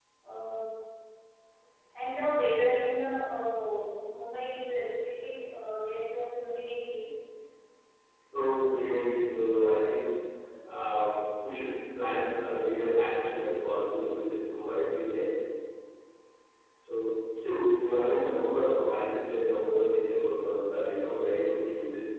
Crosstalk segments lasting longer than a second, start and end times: none

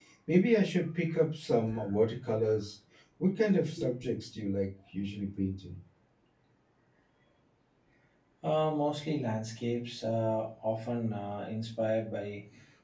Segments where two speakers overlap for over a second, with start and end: none

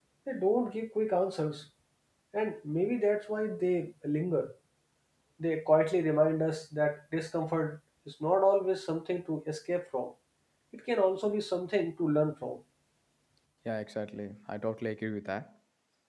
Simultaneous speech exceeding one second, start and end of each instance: none

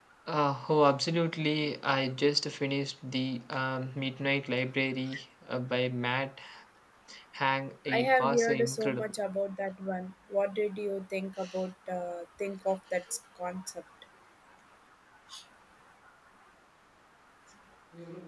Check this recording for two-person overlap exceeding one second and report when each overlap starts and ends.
7.9-9.1

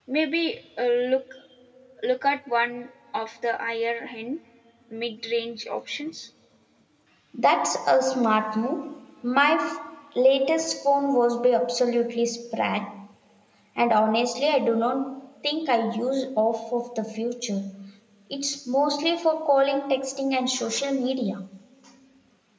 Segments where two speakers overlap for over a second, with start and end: none

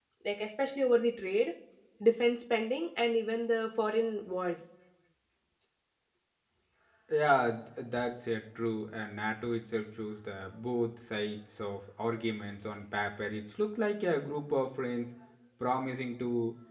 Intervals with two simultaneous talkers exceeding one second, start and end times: none

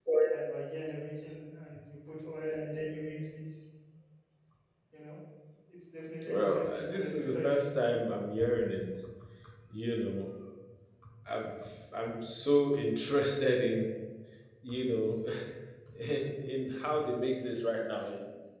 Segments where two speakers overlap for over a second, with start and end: 6.2-7.9

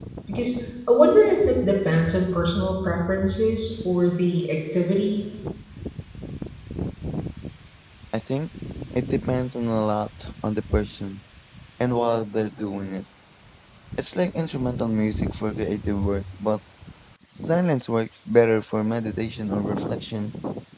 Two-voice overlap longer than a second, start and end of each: none

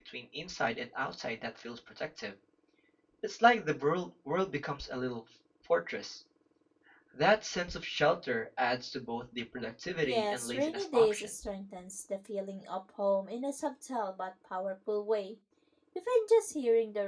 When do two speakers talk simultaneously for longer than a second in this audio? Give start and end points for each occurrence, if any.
10.0-11.3

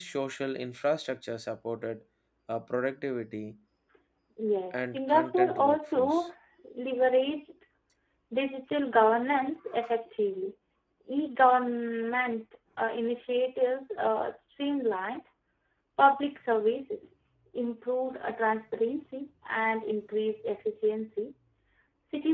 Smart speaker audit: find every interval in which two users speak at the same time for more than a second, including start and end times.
4.7-6.2

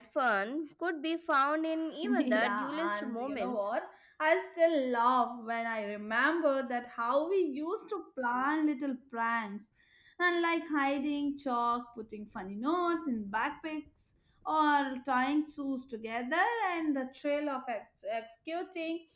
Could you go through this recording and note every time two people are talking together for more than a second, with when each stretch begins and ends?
2.0-3.6

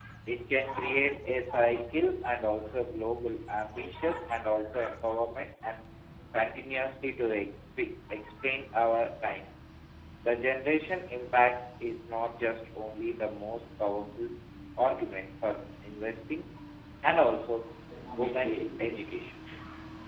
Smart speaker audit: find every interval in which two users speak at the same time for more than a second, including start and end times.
18.2-19.4

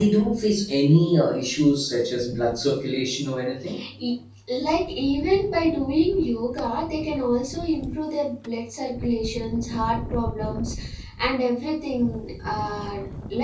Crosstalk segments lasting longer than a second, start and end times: none

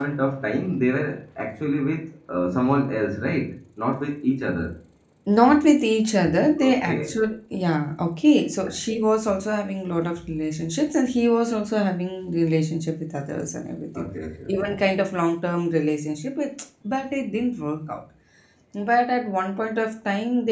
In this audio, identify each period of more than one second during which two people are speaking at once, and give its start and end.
none

